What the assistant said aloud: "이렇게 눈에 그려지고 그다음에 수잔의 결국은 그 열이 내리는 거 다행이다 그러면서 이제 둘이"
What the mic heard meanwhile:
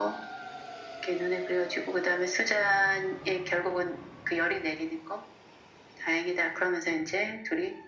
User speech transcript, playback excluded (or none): none